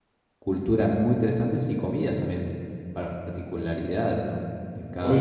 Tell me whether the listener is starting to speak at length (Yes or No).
Yes